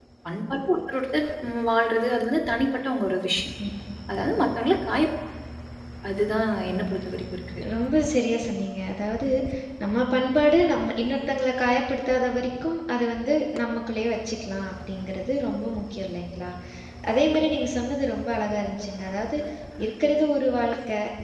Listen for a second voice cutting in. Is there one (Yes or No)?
No